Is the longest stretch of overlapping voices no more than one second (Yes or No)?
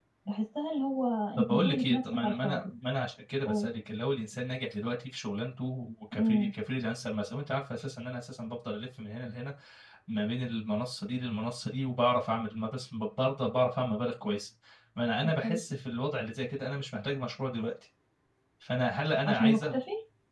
No